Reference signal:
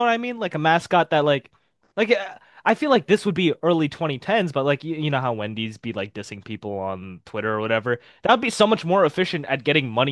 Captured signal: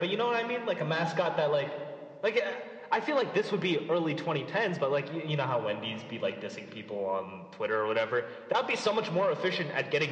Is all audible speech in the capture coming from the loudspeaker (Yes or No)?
Yes